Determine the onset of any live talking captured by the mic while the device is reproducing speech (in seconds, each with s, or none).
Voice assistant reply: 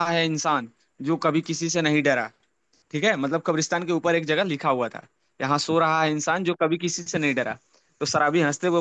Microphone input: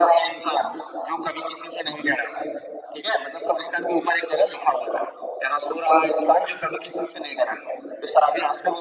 none